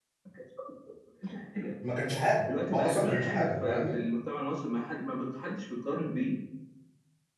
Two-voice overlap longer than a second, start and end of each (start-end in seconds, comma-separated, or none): 2.7-4.0